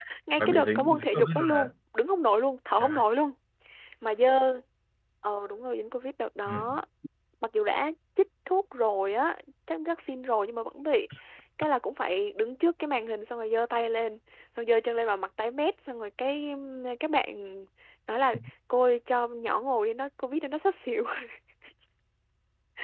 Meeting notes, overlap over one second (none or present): present